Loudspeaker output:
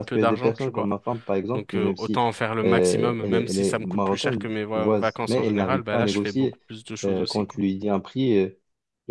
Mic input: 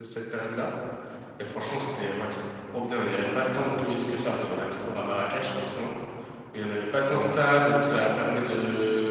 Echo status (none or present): none